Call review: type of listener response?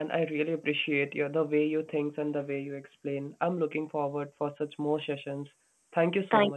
taking over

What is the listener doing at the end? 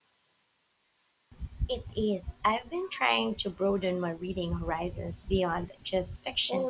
taking over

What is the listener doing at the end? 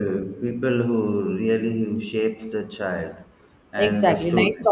taking over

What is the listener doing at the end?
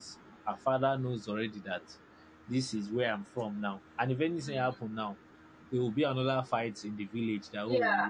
taking over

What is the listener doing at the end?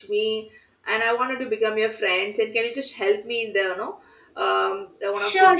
taking over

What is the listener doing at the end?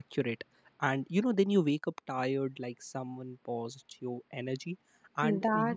listening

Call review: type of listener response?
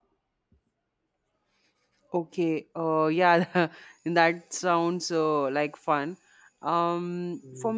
listening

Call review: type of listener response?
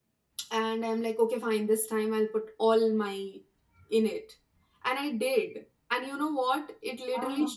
listening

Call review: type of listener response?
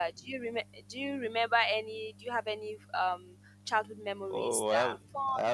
taking over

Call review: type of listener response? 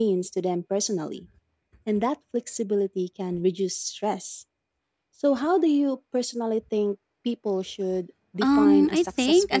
taking over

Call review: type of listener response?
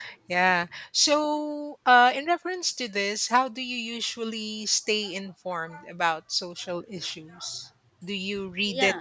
listening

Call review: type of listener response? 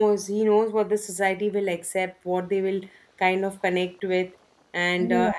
taking over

